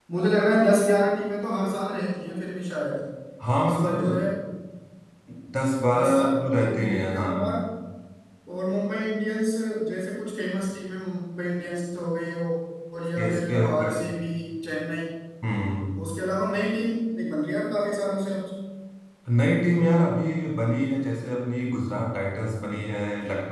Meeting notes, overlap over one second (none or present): present